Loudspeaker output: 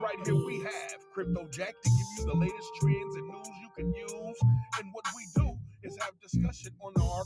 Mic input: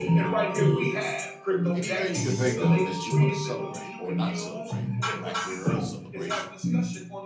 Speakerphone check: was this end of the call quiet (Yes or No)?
No